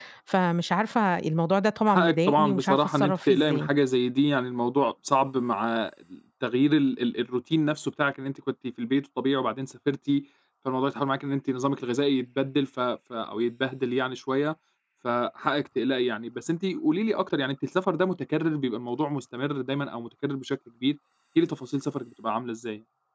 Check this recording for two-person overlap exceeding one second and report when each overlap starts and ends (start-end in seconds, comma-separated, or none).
1.9-3.7